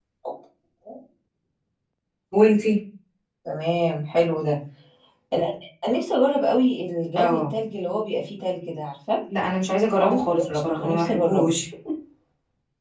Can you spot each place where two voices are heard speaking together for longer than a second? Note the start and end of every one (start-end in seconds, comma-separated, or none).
10.0-11.6